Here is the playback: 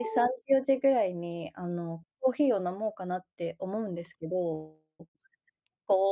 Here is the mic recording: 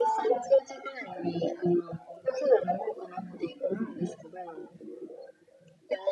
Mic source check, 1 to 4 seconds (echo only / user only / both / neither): echo only